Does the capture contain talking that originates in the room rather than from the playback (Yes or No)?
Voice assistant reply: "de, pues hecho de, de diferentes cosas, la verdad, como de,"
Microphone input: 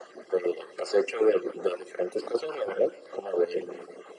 No